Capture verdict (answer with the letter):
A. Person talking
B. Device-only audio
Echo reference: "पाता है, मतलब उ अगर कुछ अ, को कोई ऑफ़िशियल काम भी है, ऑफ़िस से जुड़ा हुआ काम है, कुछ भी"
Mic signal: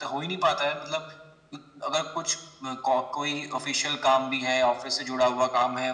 B